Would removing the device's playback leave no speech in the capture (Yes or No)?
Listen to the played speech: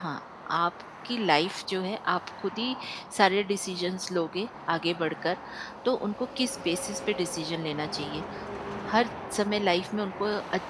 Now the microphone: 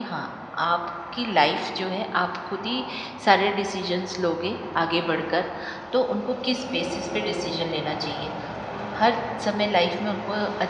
Yes